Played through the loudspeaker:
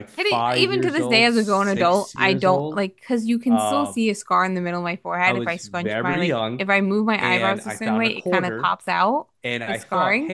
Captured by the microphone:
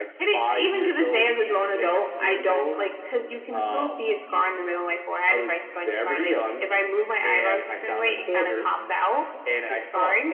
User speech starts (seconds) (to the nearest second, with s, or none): none